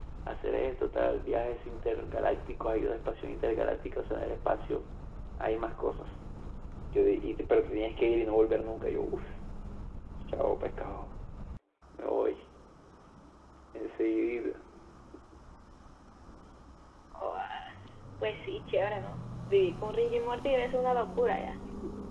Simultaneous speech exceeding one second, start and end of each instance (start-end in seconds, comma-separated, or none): none